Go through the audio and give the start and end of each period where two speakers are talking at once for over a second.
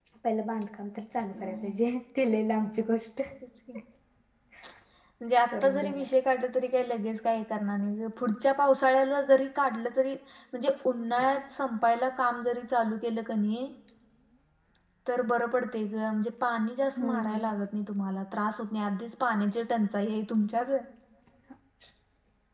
none

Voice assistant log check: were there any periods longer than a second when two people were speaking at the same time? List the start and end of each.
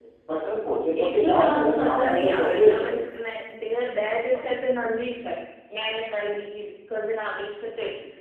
1.0-2.9

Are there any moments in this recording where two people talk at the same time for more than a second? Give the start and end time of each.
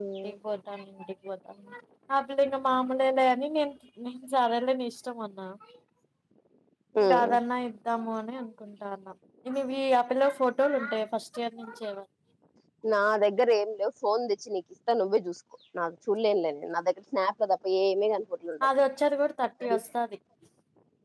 none

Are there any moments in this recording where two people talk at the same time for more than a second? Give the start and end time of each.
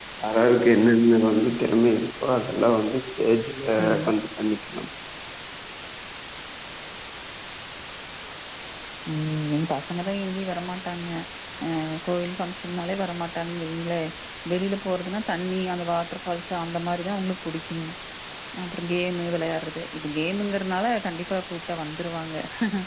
none

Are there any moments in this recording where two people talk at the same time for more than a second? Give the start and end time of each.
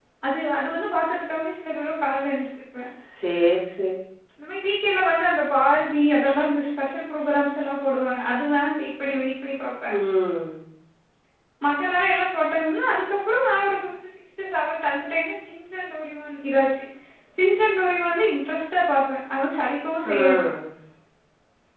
none

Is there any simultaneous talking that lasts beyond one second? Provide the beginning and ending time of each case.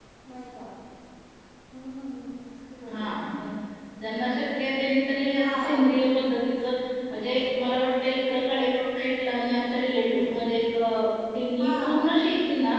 none

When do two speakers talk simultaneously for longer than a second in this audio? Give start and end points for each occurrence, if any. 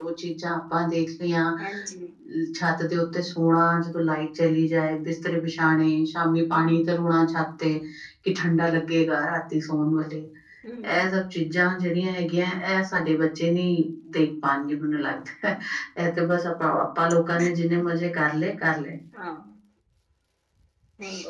none

